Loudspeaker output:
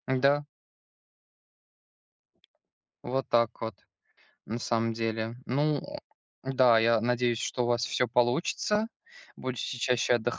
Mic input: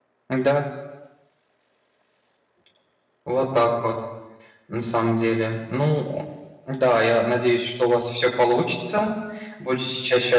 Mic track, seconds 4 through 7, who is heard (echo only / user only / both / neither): echo only